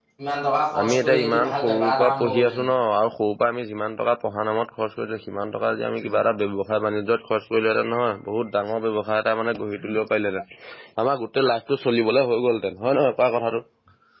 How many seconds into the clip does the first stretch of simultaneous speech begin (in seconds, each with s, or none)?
0.8 s